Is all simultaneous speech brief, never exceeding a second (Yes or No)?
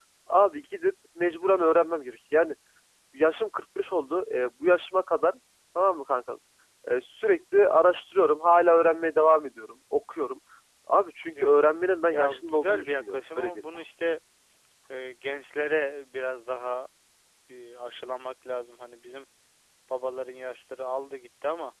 No